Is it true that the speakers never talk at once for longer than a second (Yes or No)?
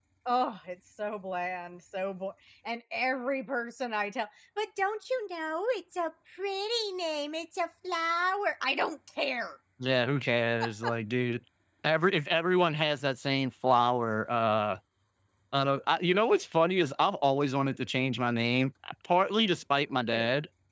Yes